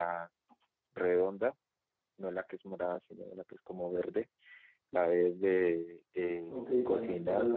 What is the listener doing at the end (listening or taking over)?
taking over